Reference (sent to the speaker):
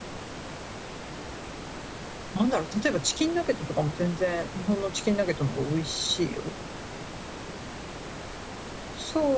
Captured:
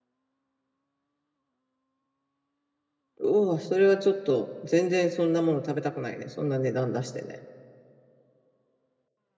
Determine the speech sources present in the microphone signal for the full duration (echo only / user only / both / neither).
user only